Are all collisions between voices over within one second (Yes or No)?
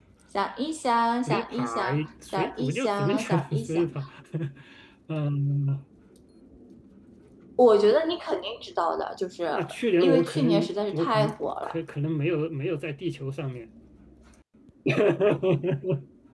No